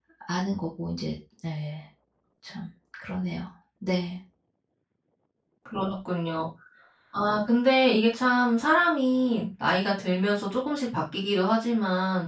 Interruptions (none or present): none